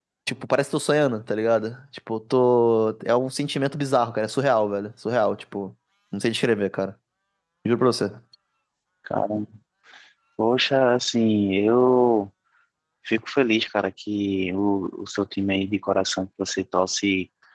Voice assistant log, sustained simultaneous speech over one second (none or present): none